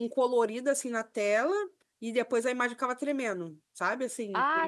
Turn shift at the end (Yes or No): Yes